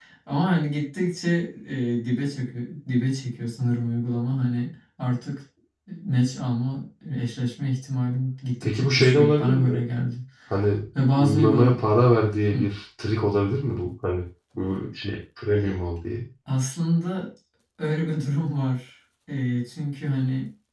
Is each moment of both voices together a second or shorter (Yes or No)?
No